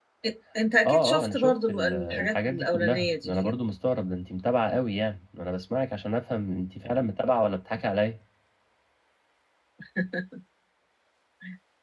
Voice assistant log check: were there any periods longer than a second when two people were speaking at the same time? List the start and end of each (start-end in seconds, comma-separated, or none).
0.8-3.6